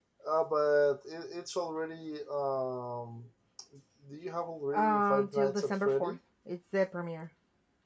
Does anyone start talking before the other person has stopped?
Yes, from 4.7 s

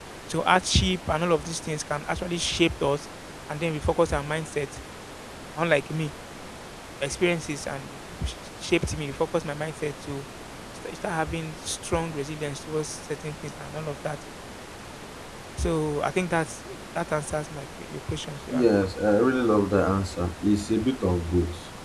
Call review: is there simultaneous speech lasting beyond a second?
No

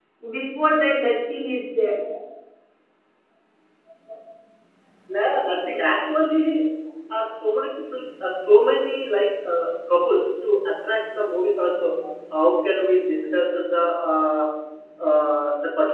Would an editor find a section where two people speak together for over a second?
No

